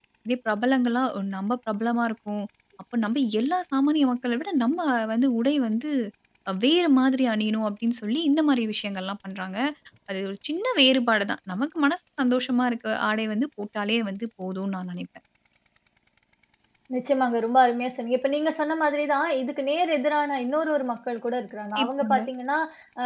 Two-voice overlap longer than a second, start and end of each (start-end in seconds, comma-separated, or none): none